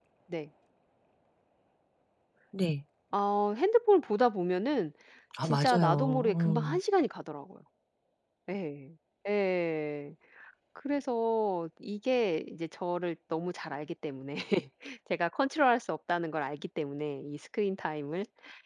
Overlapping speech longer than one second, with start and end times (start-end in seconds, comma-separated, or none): 5.4-6.8